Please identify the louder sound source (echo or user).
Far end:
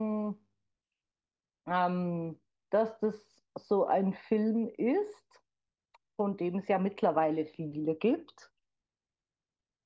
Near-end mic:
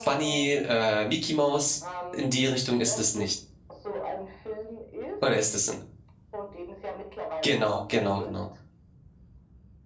user